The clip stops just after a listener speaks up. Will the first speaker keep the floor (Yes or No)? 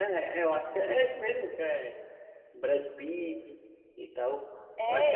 No